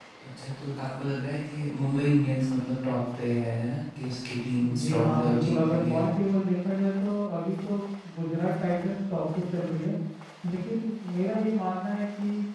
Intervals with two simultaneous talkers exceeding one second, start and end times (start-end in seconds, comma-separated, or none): 4.8-6.0